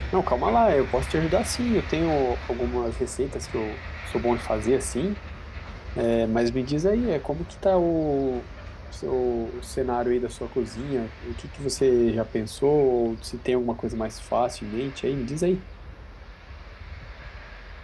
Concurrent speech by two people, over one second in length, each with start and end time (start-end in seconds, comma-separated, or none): none